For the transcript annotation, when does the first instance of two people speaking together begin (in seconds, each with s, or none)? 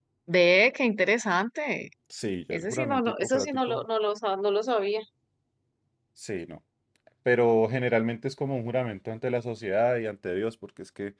2.5 s